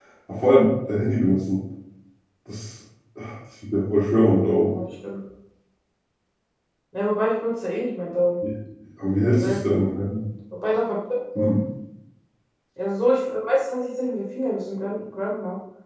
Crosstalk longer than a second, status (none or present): none